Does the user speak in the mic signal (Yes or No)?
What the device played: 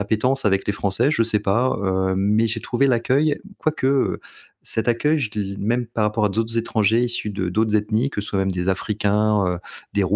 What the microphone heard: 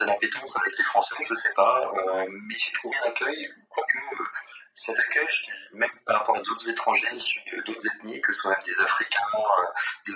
No